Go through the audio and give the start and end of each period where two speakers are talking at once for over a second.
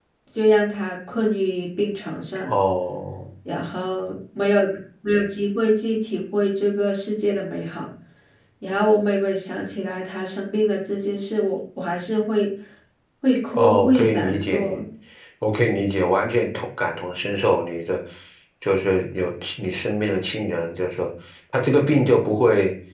13.5-14.8

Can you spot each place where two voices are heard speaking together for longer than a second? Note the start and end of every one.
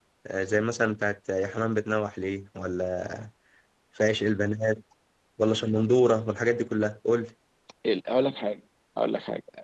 none

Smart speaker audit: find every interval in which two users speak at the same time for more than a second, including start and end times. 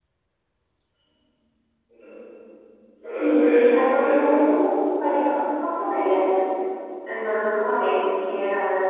3.1-4.6

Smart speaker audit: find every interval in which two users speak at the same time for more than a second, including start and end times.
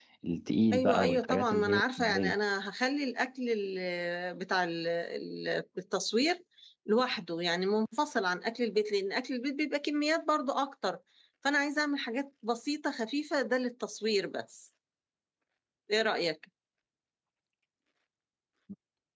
0.7-2.4

